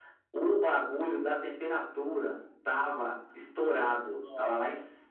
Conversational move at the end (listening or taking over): listening